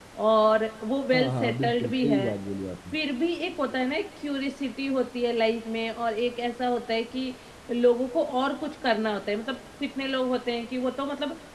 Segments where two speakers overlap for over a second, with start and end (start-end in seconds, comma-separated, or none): 1.1-2.4